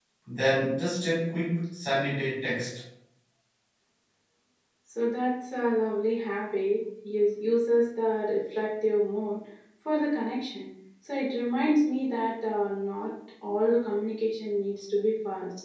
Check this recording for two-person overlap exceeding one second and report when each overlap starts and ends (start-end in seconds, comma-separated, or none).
none